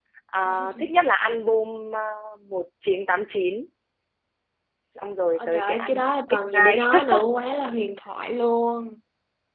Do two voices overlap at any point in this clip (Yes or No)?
Yes